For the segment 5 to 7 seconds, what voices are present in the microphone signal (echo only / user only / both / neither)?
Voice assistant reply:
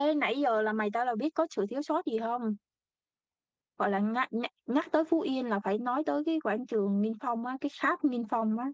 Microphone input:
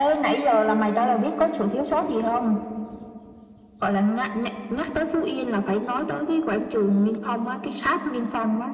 echo only